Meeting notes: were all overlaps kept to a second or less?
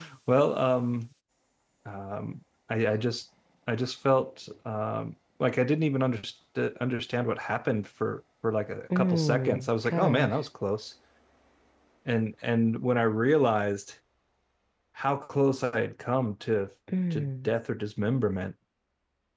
No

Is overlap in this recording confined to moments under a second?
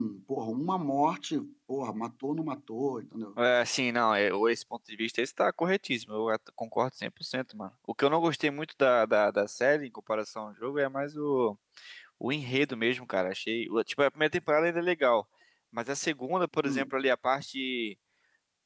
Yes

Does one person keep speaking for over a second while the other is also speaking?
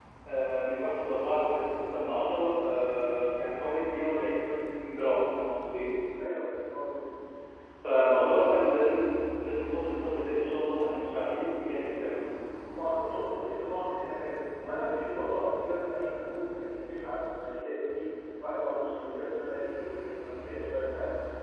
No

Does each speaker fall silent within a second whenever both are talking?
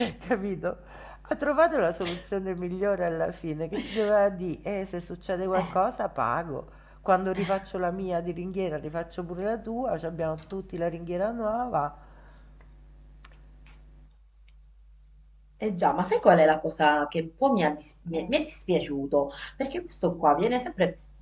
Yes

